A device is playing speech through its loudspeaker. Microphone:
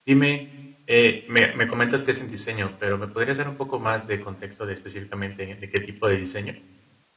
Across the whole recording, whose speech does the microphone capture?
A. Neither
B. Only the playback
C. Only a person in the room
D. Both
C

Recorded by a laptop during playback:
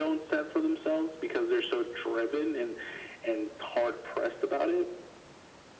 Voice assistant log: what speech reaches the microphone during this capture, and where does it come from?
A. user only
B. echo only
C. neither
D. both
B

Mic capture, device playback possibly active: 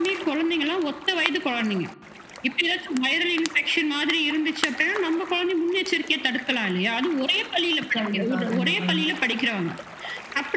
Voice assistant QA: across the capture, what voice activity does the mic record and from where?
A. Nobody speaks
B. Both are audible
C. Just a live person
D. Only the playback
B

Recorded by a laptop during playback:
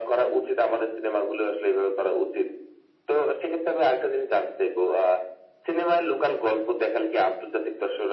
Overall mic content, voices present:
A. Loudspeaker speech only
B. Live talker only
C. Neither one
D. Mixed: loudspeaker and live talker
A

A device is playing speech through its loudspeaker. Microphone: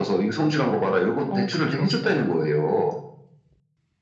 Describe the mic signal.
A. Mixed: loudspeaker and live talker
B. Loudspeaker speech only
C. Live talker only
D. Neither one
A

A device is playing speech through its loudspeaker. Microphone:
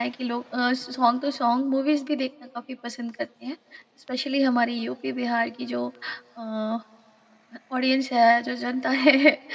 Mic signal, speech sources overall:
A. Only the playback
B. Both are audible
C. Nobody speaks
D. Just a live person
D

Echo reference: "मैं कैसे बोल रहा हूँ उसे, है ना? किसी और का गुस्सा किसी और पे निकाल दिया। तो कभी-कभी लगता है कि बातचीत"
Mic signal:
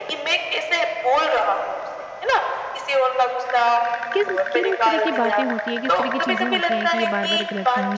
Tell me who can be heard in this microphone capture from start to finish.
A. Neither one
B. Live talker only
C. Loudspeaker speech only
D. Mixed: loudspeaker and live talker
D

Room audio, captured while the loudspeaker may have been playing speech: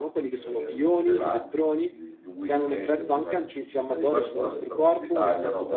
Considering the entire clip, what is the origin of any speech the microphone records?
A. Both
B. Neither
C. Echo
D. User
A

